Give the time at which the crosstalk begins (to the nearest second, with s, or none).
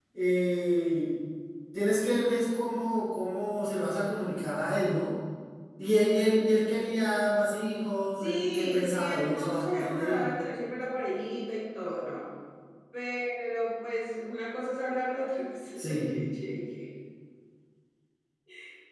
8 s